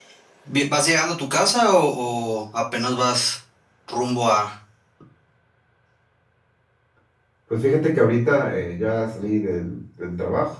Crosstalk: none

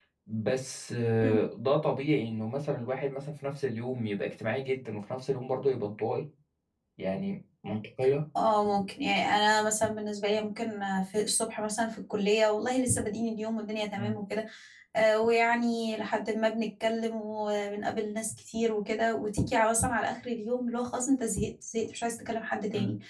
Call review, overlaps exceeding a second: none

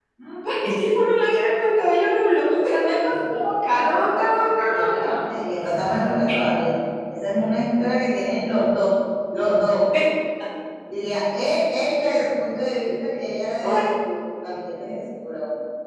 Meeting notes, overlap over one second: present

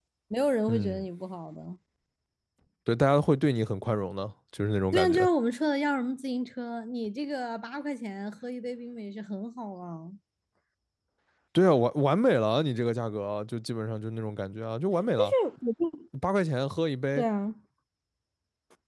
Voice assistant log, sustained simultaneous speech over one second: none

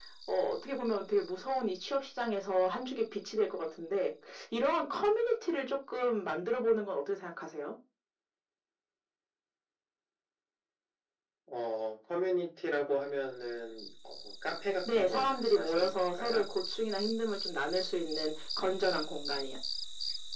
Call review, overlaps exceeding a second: present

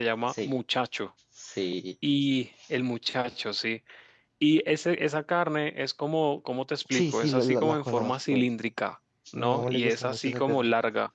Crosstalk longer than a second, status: present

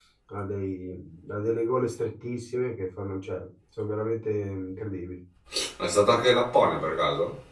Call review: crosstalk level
none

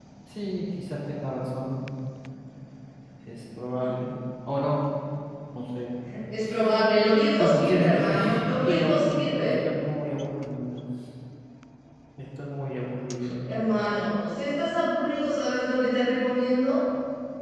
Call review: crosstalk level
present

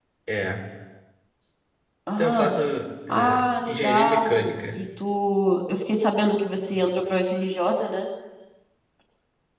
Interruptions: present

